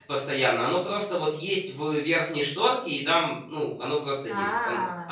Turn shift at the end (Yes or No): No